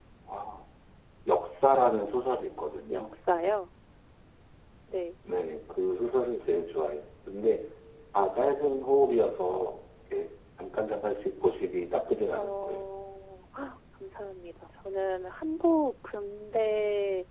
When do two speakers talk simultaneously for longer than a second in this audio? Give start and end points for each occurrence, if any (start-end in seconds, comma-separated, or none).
none